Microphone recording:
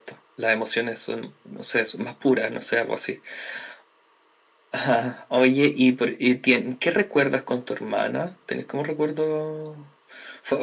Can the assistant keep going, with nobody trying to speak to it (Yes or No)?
Yes